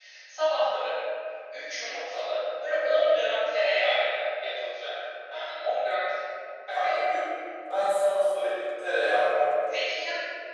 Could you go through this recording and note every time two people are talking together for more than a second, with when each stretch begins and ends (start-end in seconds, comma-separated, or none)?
none